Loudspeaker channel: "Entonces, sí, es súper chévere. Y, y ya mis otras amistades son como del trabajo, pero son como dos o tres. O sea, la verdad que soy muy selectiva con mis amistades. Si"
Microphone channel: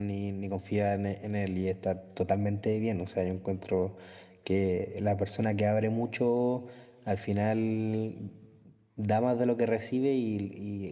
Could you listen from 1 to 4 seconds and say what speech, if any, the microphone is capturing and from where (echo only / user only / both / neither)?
user only